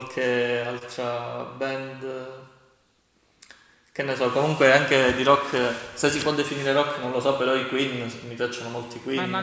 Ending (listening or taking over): taking over